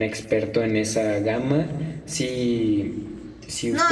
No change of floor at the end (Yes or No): No